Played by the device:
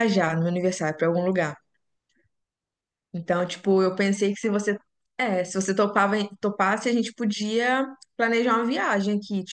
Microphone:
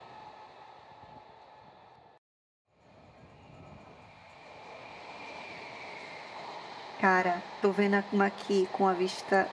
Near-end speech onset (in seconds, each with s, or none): 7.0 s